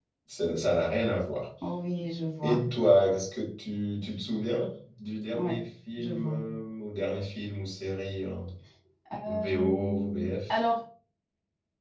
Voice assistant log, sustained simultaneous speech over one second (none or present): present